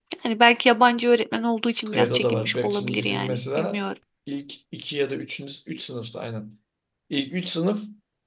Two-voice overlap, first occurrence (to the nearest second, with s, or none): 2 s